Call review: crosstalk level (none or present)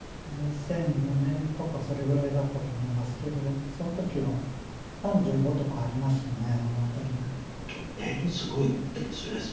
none